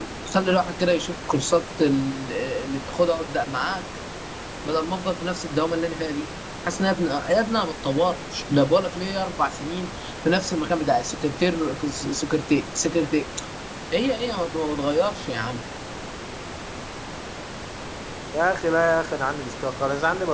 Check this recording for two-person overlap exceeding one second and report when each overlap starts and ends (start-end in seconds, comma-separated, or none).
none